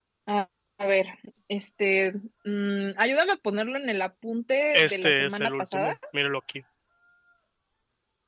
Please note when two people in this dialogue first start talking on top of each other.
5 s

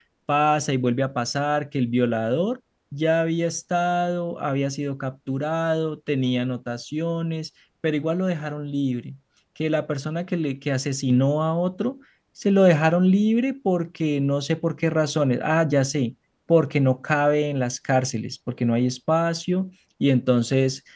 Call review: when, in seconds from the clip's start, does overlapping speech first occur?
none

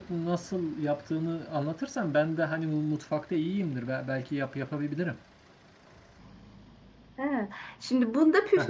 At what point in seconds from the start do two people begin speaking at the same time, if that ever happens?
none

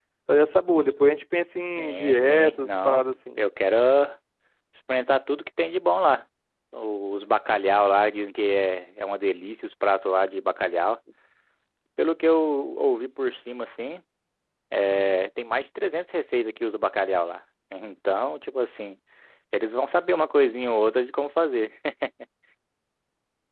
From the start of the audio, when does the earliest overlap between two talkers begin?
2 s

